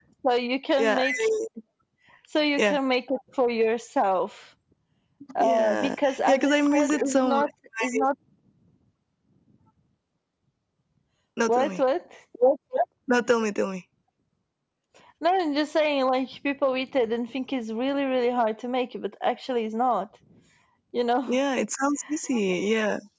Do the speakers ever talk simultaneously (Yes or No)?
Yes